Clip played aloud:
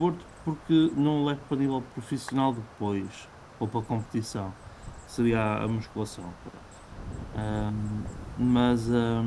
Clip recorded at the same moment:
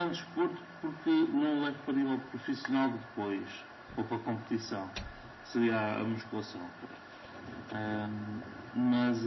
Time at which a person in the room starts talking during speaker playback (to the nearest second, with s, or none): none